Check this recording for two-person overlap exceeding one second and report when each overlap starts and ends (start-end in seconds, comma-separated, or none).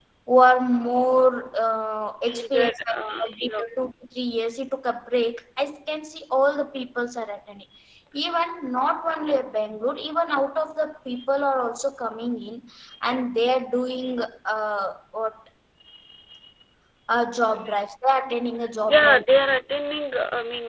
2.3-3.6